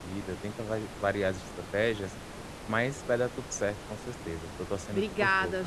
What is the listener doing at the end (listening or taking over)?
taking over